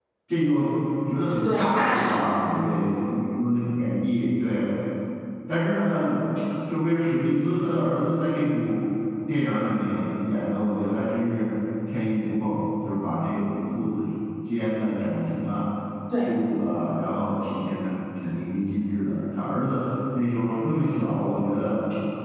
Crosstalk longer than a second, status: present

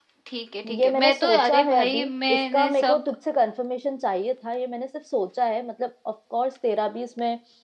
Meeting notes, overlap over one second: present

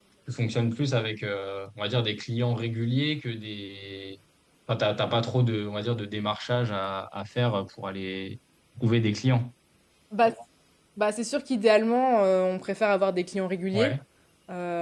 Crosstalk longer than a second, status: none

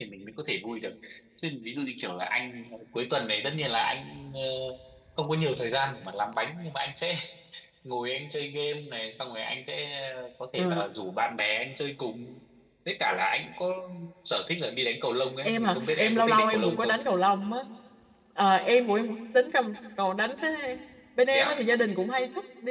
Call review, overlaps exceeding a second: present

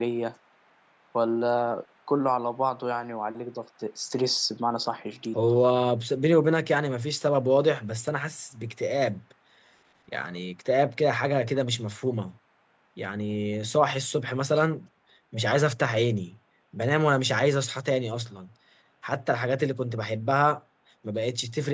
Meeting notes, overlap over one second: none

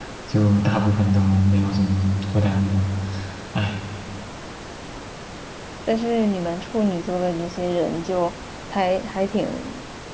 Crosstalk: none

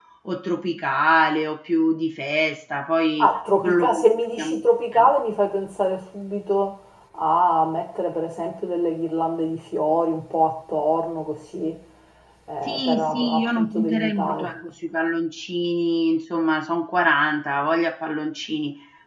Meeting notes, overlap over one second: present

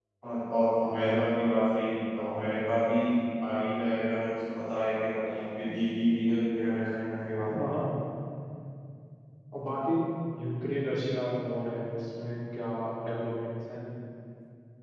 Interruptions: none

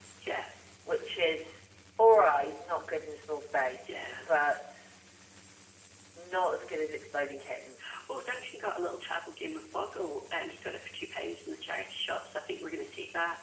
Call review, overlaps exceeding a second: none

